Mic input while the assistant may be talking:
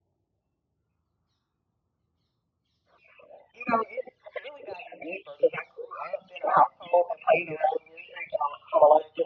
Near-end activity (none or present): none